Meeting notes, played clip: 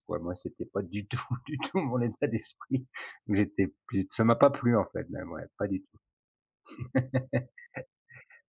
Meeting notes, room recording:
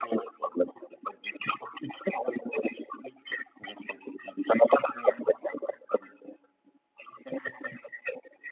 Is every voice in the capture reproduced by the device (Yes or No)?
Yes